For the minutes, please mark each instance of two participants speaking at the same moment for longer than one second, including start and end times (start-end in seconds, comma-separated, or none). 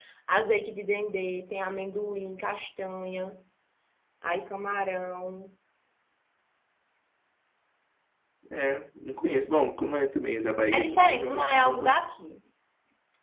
10.7-12.1